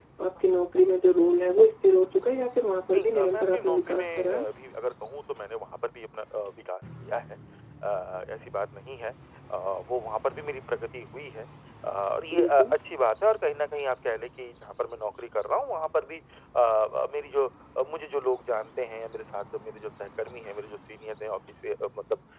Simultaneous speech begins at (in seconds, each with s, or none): 2.9 s